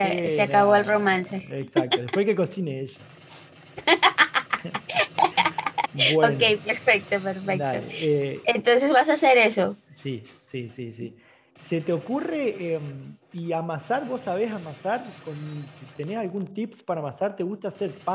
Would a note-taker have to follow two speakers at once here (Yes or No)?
Yes